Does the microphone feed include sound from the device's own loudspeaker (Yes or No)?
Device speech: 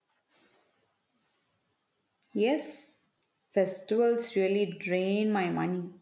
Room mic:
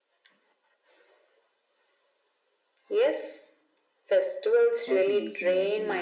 Yes